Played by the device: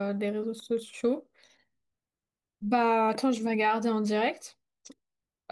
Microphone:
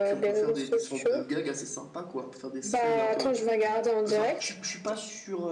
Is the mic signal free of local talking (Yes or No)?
No